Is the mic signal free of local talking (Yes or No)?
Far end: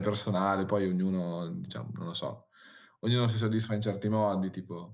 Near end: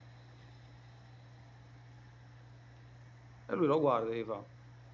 No